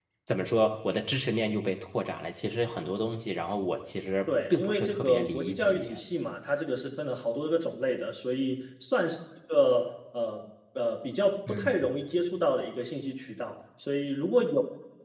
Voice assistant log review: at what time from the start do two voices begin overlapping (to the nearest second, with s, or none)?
4 s